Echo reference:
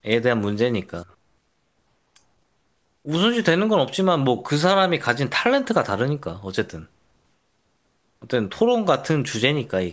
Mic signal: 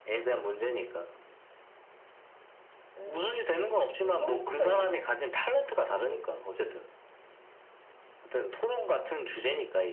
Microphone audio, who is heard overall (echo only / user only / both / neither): both